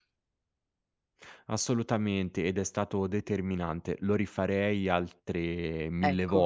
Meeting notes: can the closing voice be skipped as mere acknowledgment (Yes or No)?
Yes